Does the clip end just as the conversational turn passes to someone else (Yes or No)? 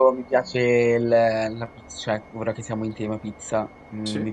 No